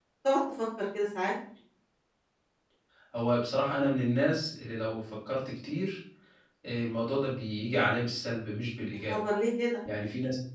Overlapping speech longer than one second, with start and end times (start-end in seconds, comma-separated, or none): none